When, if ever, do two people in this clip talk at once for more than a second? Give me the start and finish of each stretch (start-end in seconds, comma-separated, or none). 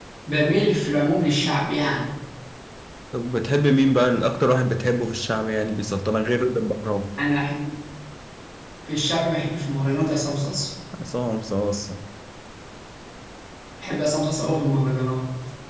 none